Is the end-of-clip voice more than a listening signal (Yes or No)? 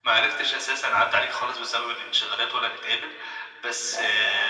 No